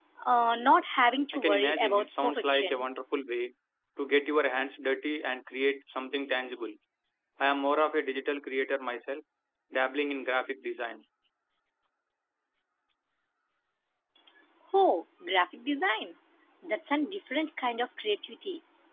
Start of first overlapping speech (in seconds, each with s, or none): 1.3 s